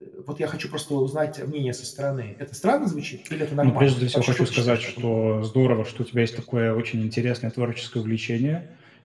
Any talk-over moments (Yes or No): Yes